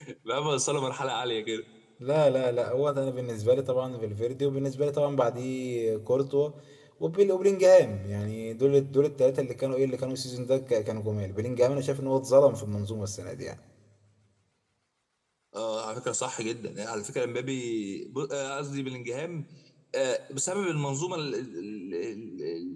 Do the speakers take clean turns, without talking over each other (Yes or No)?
Yes